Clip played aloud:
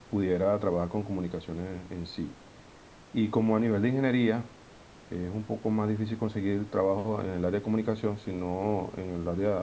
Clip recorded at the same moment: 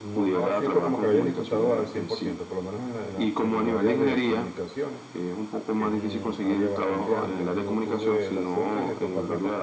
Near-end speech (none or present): present